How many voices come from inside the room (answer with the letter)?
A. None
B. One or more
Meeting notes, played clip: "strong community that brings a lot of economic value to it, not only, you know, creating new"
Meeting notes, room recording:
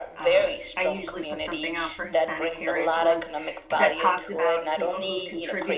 B